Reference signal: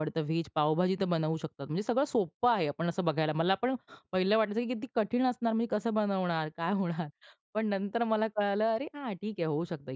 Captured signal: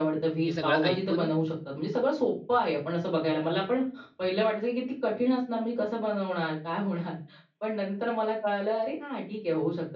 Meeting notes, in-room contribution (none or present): present